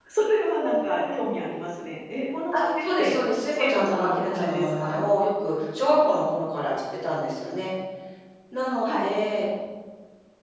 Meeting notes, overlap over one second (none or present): present